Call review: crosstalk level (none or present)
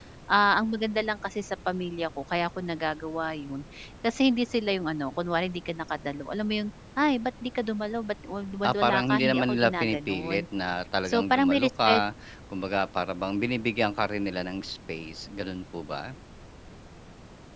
present